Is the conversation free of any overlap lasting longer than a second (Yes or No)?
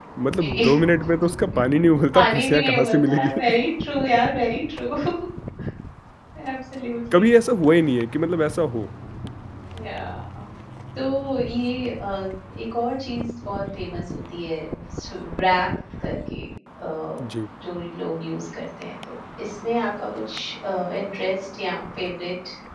No